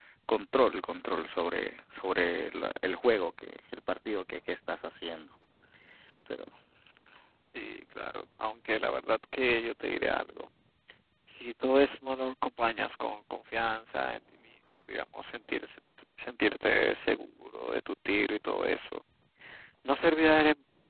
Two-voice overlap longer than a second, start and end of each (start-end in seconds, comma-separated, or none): none